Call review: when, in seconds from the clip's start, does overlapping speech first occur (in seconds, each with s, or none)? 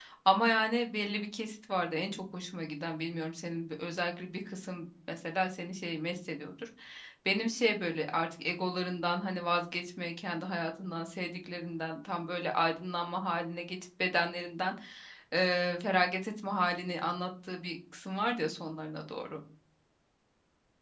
none